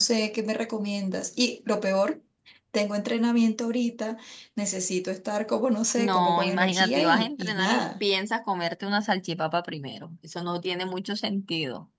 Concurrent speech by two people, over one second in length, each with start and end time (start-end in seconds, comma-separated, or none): 6.0-8.0